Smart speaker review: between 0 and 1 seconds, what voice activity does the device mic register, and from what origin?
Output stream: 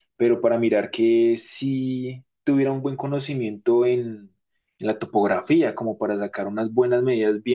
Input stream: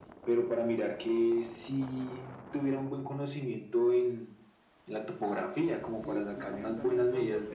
echo only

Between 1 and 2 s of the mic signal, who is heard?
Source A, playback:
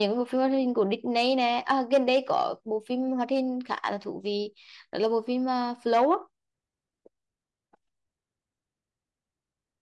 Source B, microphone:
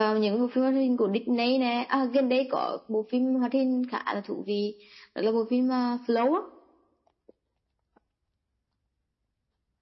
echo only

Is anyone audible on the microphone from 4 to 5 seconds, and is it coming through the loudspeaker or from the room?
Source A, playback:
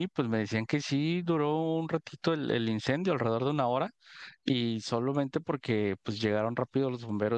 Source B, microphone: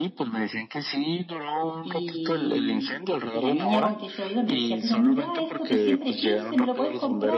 both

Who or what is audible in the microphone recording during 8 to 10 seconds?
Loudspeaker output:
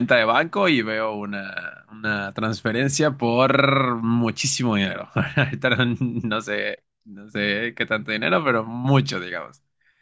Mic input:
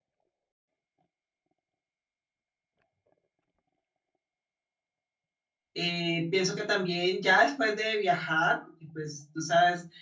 user only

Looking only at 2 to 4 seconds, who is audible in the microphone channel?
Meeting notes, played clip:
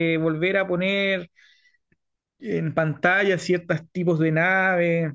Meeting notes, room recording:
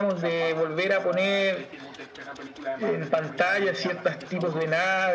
both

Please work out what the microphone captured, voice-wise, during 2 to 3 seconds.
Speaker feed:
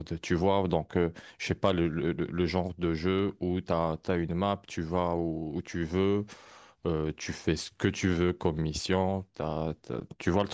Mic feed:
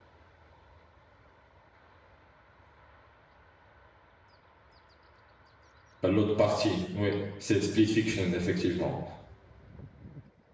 neither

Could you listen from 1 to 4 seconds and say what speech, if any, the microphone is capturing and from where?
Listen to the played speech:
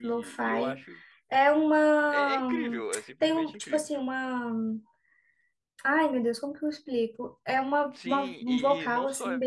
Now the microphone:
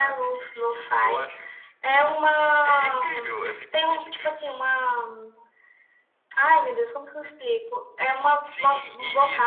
echo only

